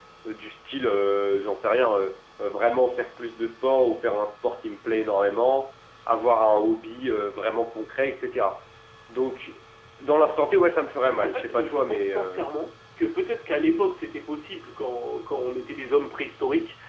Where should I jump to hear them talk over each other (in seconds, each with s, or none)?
11.0 s